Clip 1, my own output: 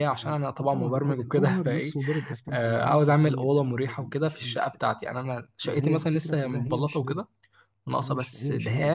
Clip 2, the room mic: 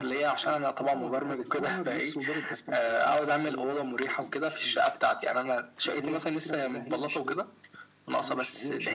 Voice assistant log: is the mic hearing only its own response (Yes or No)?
Yes